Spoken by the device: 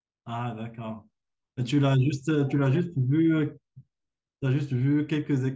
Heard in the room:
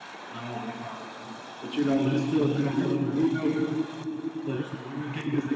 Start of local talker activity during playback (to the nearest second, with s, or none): none